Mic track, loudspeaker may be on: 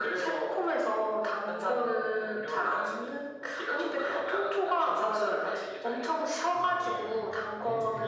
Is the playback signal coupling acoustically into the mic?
Yes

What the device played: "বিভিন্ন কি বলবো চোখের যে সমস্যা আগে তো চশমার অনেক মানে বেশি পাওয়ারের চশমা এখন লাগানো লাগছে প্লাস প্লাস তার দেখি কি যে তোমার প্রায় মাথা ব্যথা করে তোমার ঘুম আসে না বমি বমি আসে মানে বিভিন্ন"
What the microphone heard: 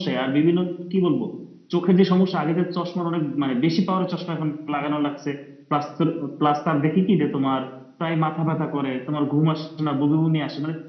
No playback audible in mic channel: No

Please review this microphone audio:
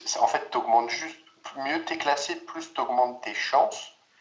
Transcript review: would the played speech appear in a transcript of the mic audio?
Yes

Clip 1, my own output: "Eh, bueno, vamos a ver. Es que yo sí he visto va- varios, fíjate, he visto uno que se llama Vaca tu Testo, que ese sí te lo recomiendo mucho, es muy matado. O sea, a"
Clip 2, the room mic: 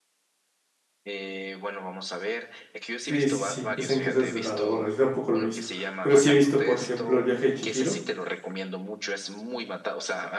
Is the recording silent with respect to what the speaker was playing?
No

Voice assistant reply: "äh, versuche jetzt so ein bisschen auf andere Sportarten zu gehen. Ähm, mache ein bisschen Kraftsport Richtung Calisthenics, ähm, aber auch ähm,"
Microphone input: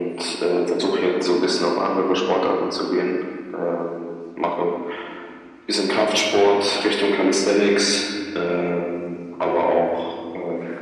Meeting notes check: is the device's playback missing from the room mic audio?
No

